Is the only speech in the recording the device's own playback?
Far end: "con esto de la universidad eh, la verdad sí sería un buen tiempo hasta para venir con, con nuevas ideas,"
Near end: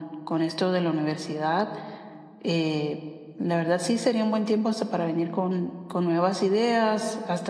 Yes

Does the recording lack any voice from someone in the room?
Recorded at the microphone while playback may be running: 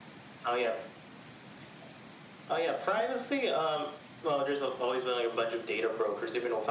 Yes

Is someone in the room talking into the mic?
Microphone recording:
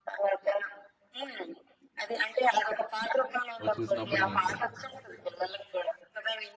Yes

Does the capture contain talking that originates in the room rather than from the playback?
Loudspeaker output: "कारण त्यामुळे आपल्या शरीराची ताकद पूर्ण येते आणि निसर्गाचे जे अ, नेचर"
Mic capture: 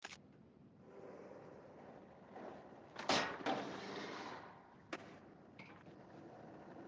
No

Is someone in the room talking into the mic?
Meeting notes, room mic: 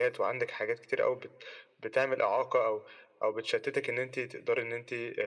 No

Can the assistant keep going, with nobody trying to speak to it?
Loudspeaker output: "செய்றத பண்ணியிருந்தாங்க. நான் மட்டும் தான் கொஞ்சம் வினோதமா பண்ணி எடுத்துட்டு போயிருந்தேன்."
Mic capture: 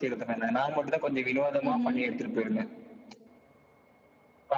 No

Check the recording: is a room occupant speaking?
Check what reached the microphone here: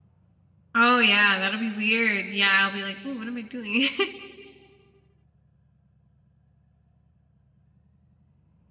Yes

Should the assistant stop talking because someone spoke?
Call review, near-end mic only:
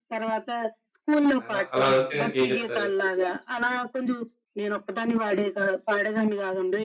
Yes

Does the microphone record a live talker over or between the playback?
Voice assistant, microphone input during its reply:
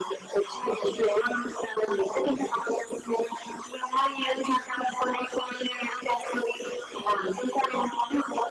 No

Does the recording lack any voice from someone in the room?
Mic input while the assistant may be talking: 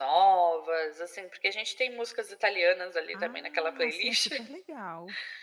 No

